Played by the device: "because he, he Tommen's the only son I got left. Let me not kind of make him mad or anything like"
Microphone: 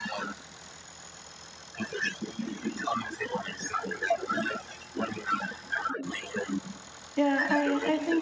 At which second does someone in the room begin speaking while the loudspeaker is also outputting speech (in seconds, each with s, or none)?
7.2 s